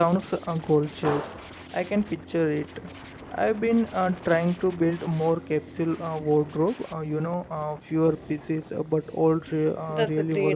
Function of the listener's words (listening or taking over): taking over